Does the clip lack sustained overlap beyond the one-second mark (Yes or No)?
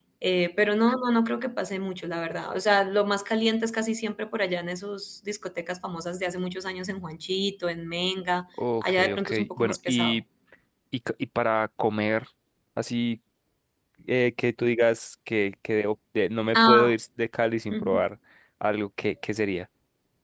No